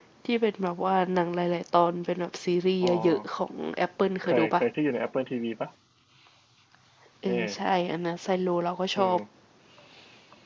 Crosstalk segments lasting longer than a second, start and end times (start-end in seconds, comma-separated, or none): none